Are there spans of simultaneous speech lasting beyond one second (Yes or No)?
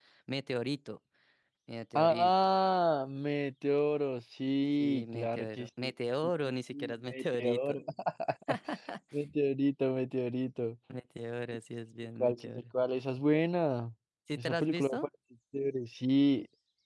Yes